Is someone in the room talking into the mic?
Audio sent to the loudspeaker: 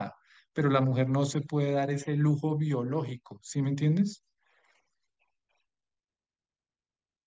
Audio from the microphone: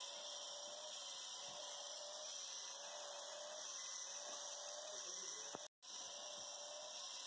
No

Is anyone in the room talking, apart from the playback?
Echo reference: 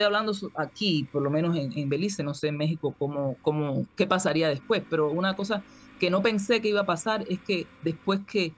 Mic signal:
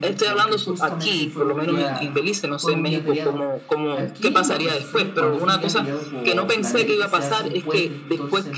Yes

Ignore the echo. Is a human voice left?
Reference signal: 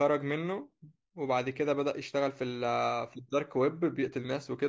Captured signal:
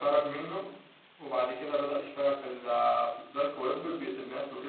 No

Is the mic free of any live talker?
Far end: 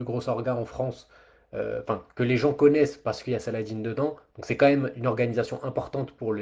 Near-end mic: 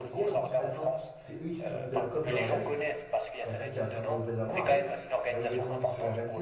No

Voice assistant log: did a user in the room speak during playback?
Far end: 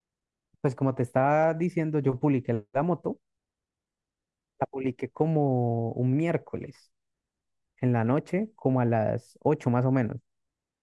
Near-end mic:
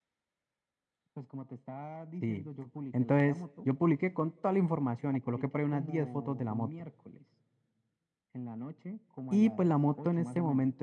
Yes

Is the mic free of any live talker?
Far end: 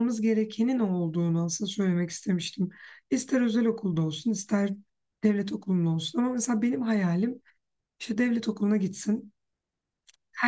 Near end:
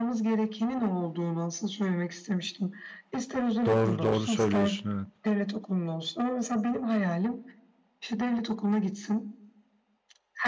No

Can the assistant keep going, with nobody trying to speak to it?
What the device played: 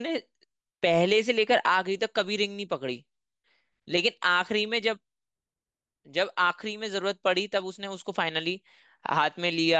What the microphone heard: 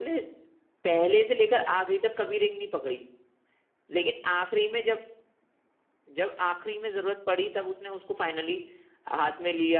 Yes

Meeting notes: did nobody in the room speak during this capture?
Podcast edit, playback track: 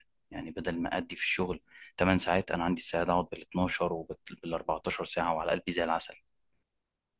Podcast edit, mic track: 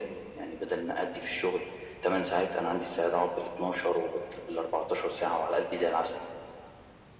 Yes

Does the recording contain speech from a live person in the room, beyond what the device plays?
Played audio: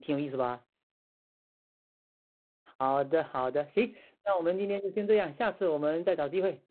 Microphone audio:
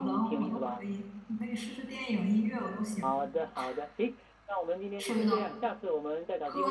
Yes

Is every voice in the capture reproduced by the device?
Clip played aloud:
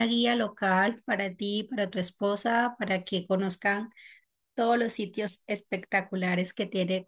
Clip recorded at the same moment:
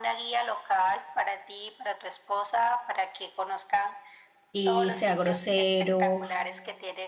No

